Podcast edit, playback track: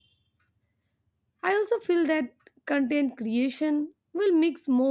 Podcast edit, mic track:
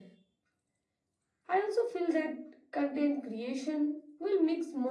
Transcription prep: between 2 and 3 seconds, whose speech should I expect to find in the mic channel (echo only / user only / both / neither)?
echo only